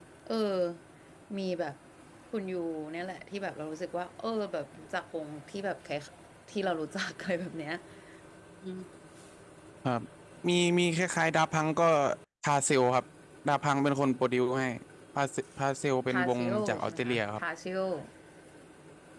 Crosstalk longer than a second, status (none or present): present